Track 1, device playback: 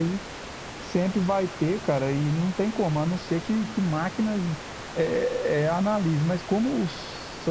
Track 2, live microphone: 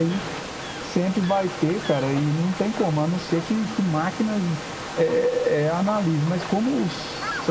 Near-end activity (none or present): none